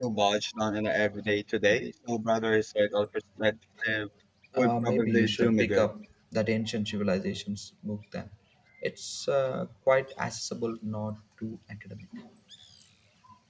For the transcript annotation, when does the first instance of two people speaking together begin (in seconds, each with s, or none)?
4.5 s